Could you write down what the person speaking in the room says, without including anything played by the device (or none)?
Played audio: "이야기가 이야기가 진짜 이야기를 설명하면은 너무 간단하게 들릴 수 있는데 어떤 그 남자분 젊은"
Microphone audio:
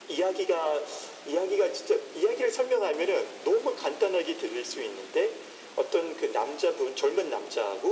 none